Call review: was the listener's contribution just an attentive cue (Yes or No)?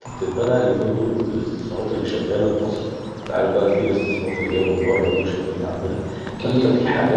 Yes